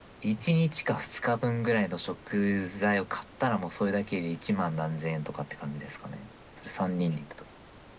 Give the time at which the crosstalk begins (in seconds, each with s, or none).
none